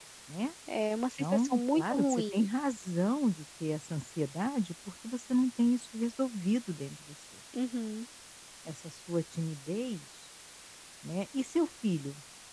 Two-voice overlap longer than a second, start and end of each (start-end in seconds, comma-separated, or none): 1.2-2.5